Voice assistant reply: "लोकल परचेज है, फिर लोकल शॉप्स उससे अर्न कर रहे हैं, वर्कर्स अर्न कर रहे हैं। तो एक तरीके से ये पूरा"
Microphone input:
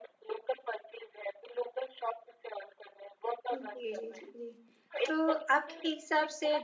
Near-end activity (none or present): present